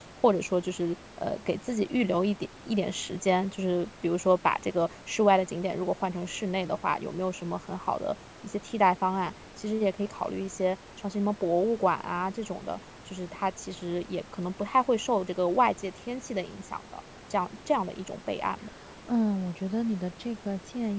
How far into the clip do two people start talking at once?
none

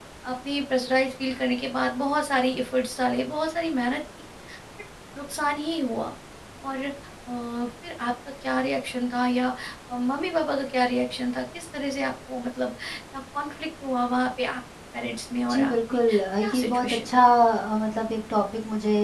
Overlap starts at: 15 s

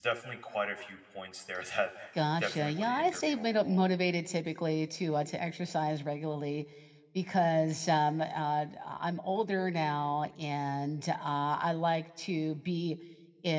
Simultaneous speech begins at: 2 s

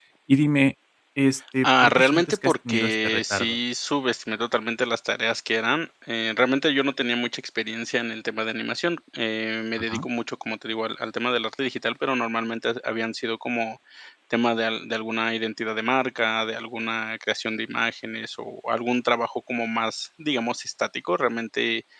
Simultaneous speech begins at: 2 s

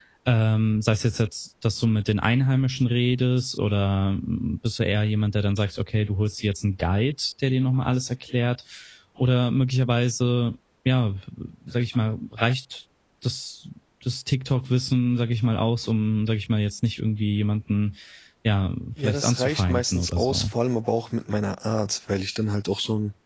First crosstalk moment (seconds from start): 19 s

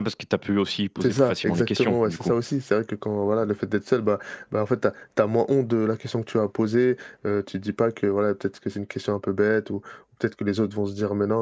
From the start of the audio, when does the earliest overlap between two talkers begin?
1 s

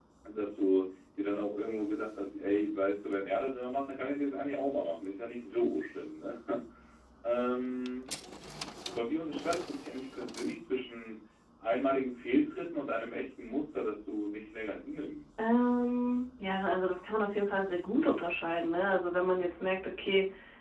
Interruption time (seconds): none

